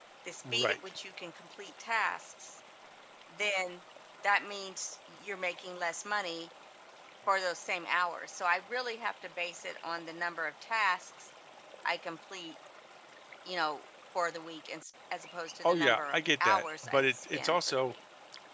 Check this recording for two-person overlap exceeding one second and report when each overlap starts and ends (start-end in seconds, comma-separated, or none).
15.6-17.8